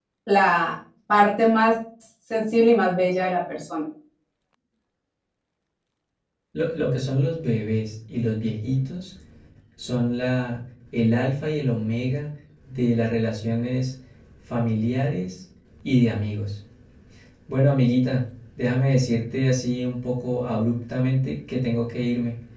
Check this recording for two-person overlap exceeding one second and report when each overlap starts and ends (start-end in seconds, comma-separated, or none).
none